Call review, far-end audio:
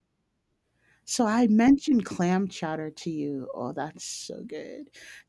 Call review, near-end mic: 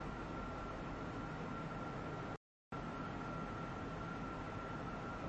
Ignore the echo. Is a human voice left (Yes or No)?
No